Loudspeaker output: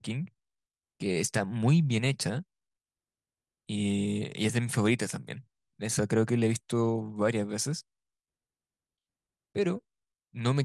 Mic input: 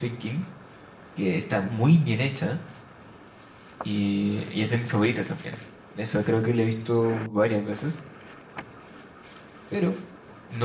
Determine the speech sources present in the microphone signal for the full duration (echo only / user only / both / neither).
echo only